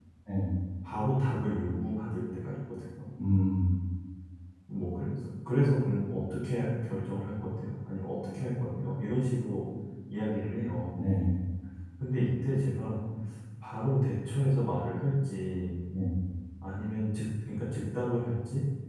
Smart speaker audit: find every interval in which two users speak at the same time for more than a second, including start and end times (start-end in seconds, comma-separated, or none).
none